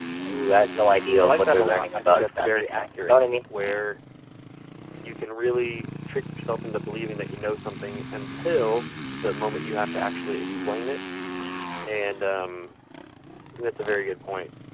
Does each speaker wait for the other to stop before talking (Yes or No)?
No